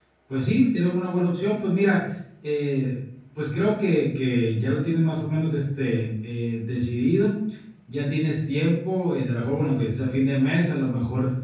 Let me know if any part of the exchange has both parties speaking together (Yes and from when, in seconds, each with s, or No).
No